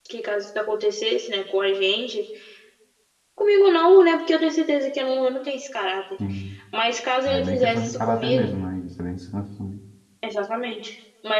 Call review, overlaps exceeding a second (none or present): present